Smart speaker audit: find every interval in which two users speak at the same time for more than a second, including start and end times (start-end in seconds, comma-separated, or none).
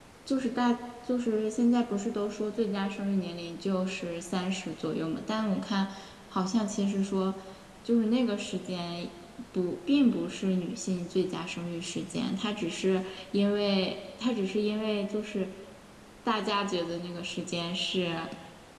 none